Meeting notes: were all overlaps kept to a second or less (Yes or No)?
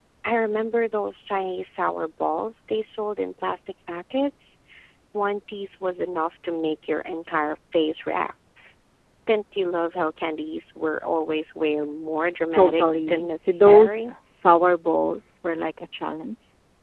No